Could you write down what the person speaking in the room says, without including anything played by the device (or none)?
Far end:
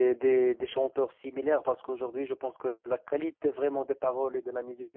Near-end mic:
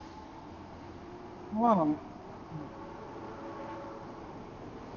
Wow. Mhm,